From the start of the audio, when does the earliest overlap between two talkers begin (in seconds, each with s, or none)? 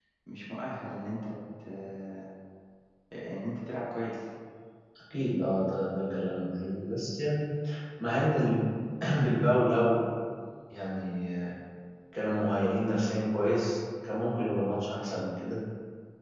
none